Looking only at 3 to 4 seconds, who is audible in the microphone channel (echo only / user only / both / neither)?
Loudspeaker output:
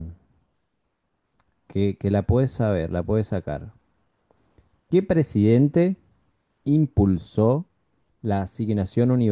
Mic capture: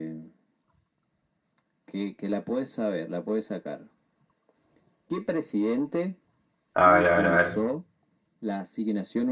echo only